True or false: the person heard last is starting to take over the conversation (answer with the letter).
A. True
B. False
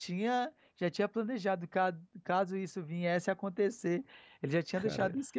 B